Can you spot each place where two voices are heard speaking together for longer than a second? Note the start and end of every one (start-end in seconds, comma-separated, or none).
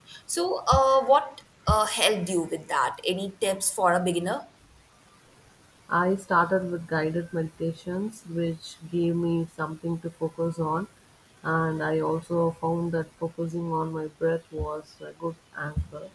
none